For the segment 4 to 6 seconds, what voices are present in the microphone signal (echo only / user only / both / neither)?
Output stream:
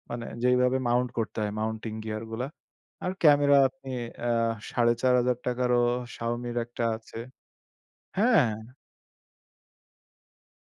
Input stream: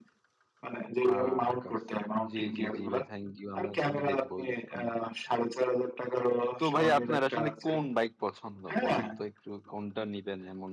both